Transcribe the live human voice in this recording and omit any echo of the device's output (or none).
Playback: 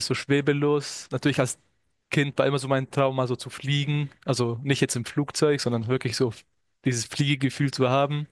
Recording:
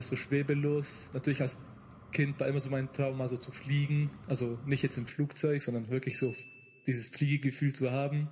none